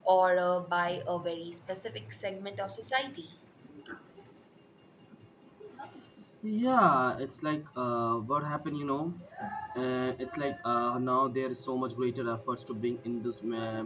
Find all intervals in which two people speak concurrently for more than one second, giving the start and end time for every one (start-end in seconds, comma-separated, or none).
none